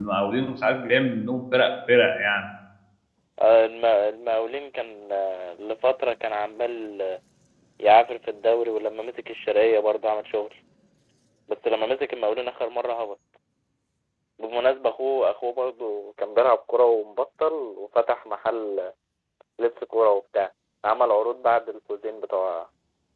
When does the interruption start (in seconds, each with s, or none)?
none